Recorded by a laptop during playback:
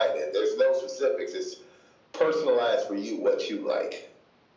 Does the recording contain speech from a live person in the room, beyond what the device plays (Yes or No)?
No